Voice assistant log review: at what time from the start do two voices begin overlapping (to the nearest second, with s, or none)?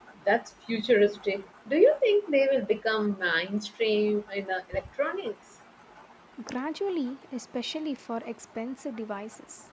none